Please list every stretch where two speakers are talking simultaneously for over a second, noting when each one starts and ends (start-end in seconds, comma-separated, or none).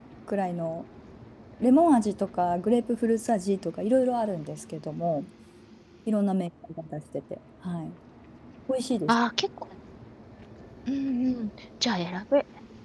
none